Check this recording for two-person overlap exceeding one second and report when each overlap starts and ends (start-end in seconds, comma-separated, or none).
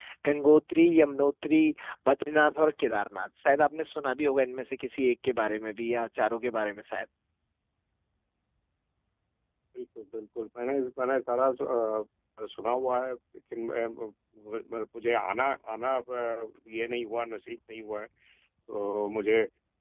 none